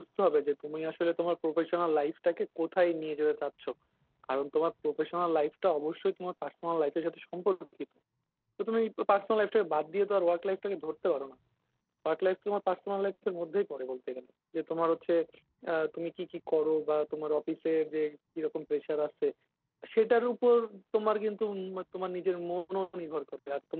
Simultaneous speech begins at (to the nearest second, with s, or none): none